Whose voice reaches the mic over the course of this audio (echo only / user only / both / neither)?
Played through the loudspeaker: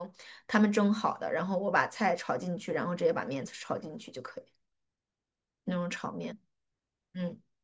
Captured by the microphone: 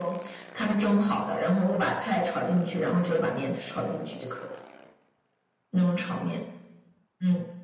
echo only